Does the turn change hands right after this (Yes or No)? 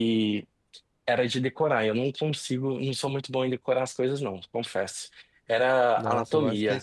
Yes